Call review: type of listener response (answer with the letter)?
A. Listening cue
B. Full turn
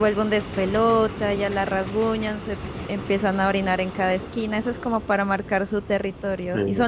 A